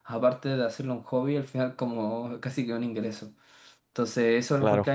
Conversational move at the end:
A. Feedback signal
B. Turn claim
A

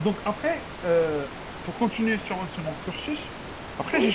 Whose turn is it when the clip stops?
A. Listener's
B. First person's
B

